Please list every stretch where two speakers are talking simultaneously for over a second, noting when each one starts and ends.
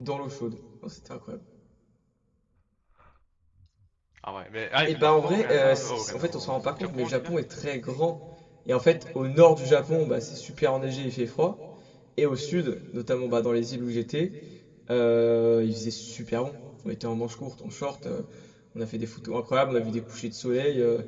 4.9-7.3

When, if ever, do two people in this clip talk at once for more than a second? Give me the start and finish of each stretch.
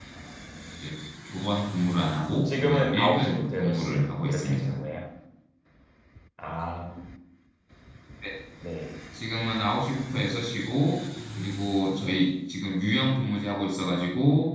2.4-4.7

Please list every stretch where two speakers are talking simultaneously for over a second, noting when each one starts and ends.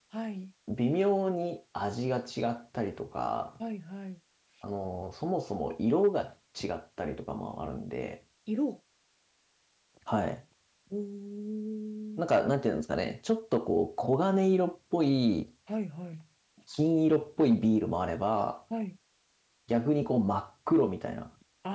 none

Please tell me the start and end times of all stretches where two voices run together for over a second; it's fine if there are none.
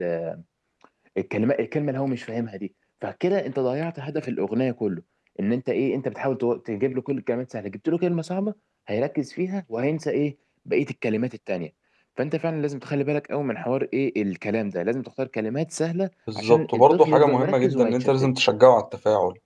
16.4-18.5

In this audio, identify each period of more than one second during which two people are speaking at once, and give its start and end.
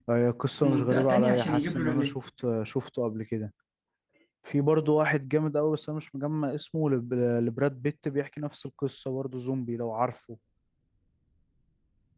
0.6-2.1

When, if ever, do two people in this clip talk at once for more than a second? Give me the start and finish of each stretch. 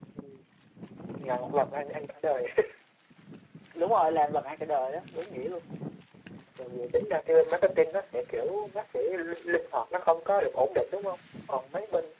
none

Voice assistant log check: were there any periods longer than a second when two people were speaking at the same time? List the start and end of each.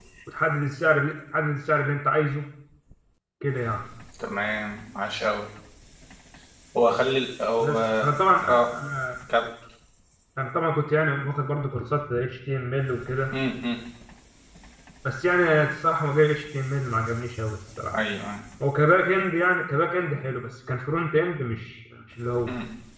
none

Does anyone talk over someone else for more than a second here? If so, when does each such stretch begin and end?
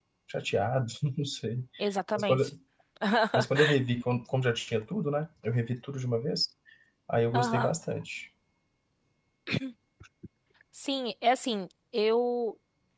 none

